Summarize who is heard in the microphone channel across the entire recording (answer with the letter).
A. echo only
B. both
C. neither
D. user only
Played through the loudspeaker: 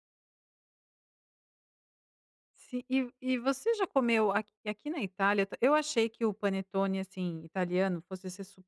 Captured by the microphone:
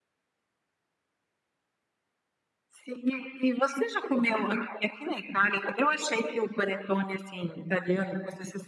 A